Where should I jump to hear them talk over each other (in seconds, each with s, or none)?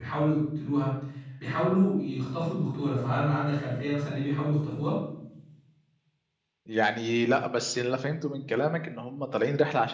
none